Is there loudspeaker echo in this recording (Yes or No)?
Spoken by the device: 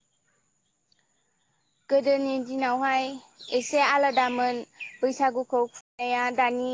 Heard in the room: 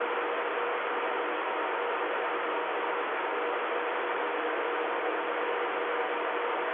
No